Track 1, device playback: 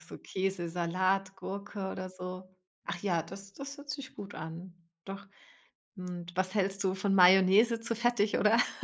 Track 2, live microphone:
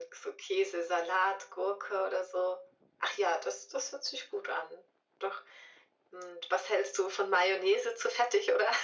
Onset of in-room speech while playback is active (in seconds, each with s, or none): none